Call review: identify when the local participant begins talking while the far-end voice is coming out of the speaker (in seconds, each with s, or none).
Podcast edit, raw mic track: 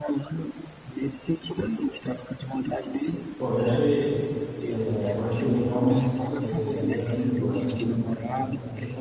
3.4 s